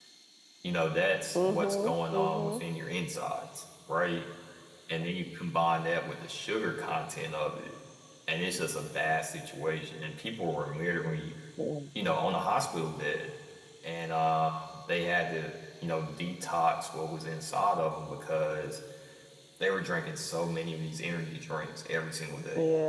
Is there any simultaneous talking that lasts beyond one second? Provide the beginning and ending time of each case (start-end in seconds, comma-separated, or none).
1.4-2.6